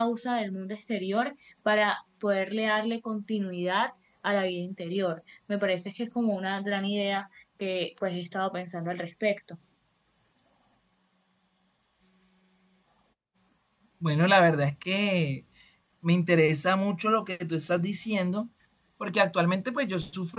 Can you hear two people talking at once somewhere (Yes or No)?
No